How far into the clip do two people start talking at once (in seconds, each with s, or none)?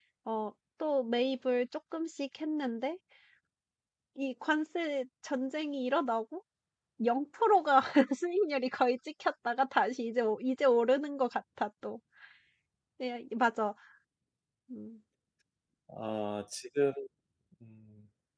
none